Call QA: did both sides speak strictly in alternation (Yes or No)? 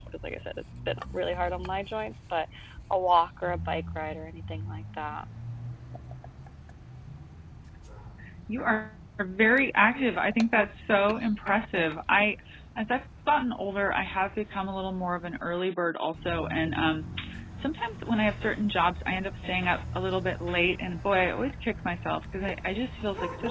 Yes